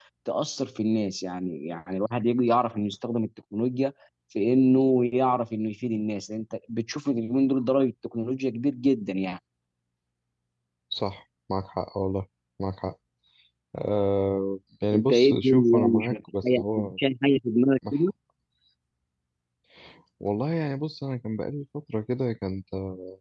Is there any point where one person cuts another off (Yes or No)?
Yes